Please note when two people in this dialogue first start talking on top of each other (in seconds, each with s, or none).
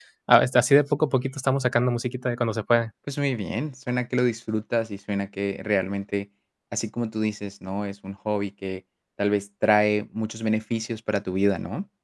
none